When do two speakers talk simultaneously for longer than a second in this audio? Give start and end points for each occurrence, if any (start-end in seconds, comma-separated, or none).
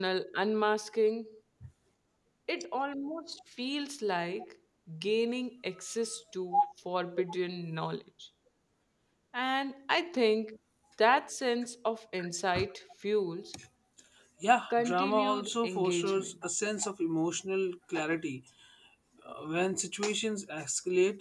14.7-16.3